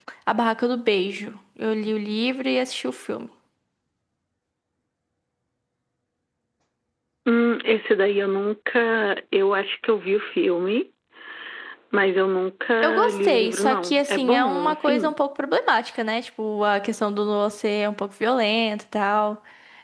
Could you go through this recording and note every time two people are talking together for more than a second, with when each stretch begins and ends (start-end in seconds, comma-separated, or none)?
13.1-15.1